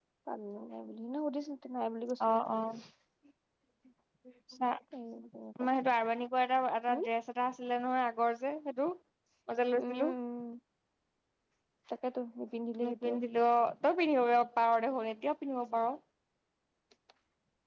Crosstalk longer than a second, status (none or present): none